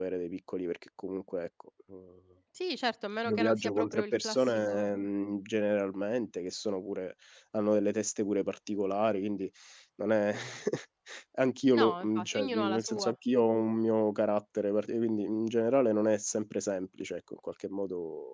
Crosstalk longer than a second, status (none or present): present